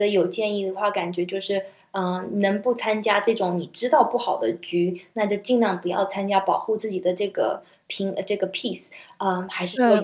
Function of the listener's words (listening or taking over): taking over